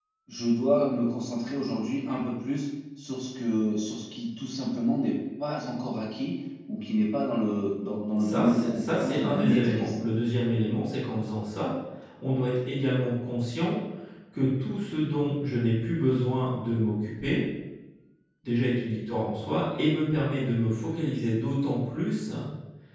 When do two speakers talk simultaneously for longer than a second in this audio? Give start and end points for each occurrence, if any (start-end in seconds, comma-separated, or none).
8.2-9.9